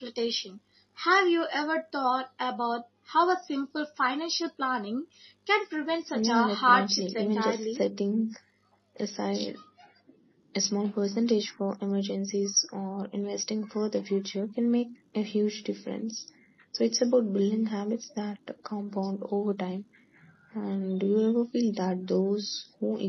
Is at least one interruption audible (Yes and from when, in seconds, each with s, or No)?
Yes, from 6.1 s